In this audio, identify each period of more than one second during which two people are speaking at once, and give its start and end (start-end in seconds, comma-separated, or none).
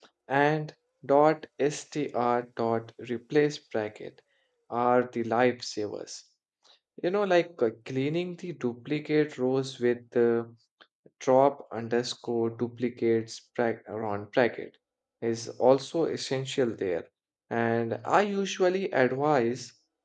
none